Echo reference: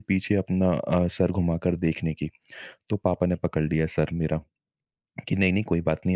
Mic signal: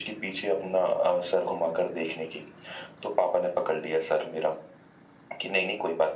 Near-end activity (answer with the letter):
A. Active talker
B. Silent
B